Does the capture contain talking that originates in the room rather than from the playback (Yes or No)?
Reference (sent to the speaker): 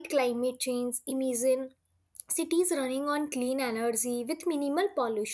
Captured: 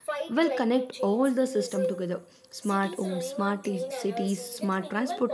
Yes